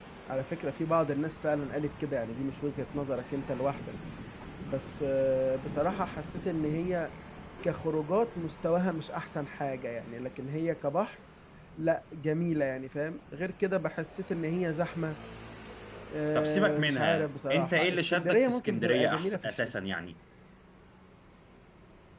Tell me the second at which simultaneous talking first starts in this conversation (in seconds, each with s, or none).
16.4 s